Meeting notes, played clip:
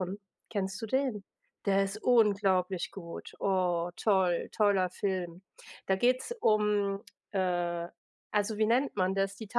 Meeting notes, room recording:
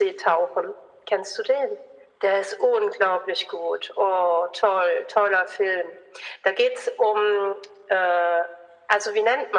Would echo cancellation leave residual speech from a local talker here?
No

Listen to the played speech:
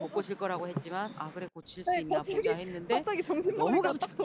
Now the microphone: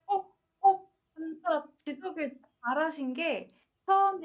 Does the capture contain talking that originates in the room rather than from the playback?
Yes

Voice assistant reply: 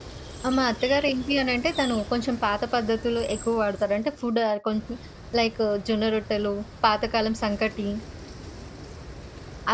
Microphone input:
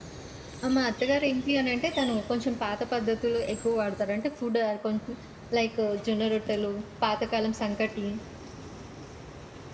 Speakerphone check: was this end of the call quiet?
Yes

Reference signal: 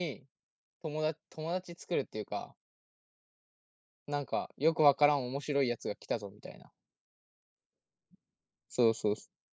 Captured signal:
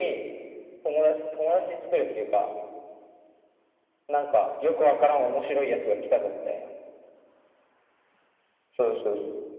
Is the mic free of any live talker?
Yes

